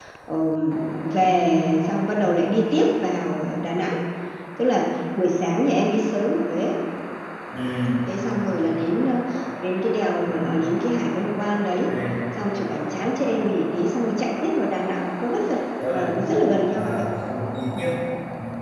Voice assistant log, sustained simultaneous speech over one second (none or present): none